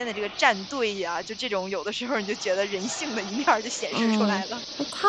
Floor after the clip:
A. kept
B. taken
B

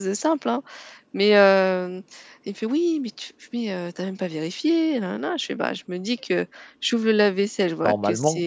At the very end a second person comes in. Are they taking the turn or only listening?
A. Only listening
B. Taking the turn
A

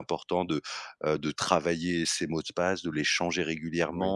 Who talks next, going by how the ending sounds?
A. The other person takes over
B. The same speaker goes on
B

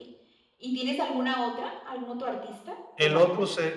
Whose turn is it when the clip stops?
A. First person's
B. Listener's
B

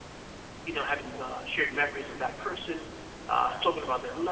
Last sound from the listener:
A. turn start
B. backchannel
B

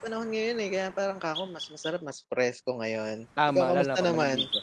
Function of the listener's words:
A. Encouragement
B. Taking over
B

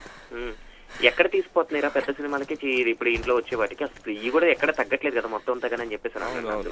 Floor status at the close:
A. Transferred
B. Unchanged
A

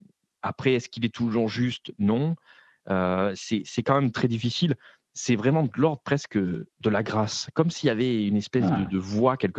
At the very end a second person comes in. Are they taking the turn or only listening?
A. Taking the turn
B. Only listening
B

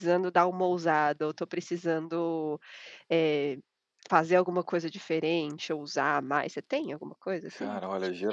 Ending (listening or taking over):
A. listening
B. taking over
B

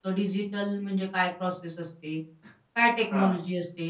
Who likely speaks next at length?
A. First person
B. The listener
A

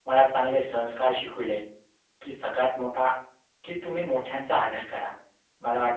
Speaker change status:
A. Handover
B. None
B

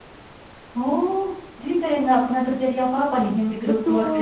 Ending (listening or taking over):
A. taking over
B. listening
A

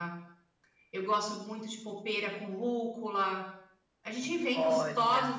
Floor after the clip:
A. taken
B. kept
B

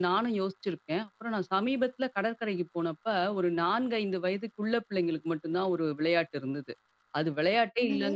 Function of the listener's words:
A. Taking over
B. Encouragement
B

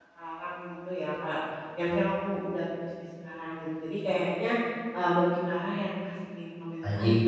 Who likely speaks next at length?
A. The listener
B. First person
A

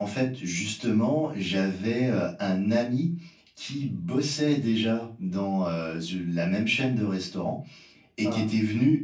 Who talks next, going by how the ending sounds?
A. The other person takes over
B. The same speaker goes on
B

